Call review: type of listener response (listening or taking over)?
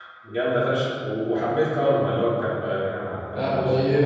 taking over